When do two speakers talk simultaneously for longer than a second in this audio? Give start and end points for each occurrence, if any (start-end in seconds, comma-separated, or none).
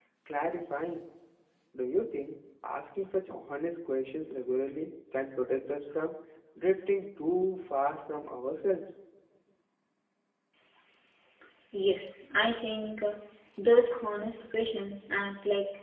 none